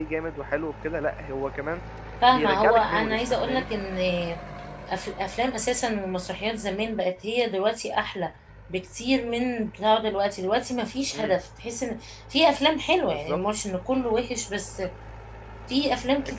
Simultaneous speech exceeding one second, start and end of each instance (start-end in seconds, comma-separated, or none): 2.3-3.6